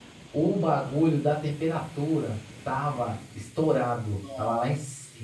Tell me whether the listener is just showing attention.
Yes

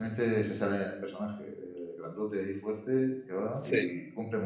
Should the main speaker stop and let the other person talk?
No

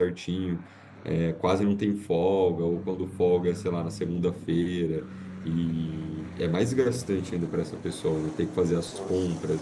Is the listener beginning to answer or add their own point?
No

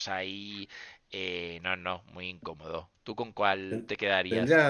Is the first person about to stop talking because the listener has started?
Yes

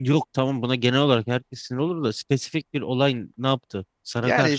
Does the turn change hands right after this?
Yes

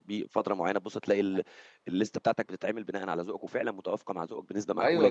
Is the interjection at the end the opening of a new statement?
Yes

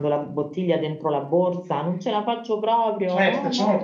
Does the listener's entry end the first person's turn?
Yes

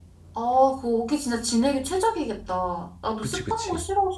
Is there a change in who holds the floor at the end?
No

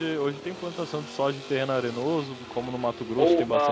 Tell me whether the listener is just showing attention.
No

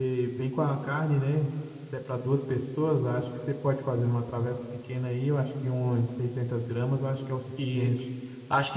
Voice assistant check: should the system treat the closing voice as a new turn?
Yes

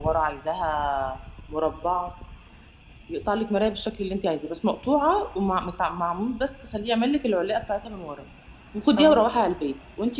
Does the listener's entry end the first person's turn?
No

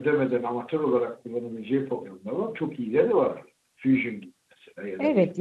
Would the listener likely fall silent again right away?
No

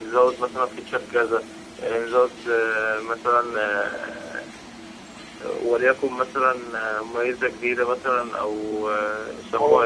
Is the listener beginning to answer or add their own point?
Yes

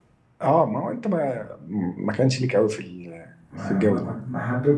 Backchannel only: No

